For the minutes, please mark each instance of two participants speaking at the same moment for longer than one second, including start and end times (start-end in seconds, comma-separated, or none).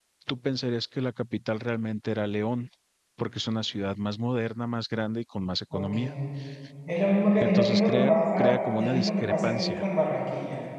7.4-9.8